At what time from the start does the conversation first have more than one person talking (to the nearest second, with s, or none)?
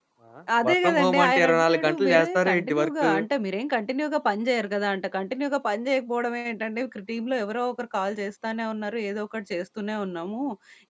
1 s